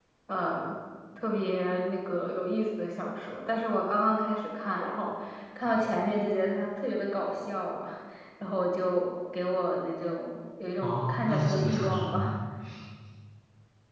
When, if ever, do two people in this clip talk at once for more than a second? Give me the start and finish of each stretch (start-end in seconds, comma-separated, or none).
10.8-12.3